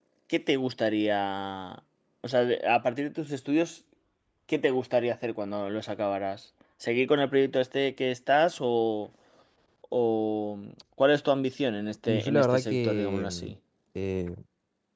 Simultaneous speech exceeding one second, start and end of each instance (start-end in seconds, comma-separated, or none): 12.1-13.5